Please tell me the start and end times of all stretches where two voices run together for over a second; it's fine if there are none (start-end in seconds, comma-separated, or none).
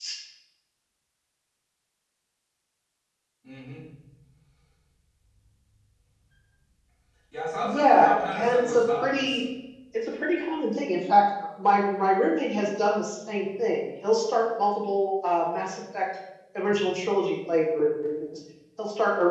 7.6-9.4